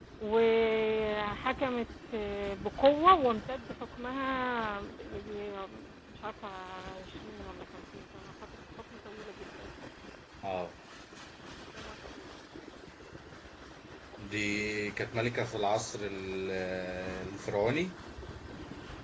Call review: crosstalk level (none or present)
none